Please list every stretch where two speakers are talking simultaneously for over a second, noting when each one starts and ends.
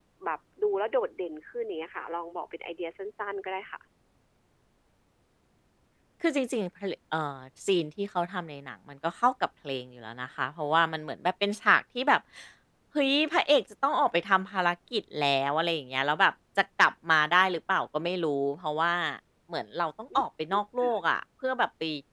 none

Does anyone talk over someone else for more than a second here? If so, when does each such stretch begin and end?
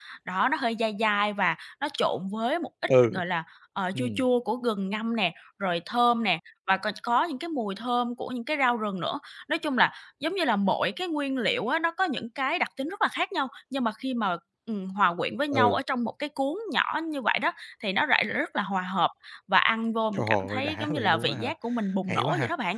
20.1-21.5

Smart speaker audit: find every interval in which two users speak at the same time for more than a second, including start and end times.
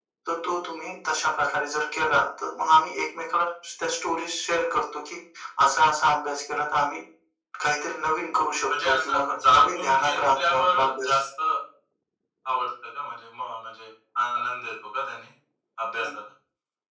8.7-11.2

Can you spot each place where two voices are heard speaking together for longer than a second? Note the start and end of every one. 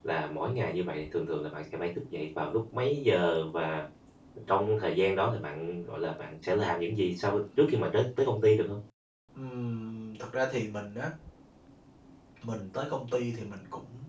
none

